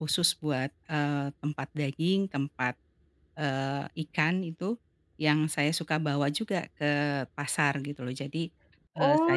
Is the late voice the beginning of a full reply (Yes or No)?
Yes